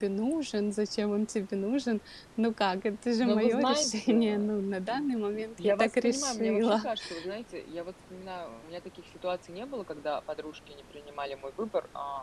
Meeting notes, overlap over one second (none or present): present